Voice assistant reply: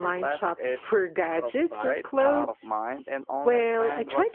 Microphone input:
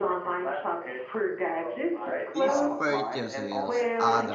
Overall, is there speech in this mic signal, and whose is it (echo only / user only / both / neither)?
both